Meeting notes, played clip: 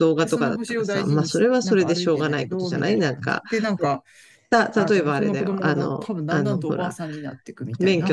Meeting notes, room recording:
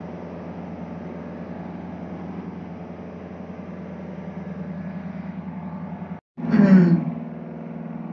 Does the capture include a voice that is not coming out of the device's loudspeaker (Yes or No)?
Yes